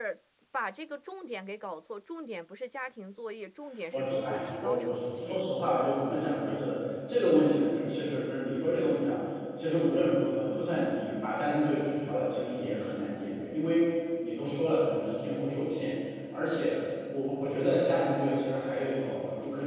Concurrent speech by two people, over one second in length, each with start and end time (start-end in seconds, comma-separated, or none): 3.9-5.5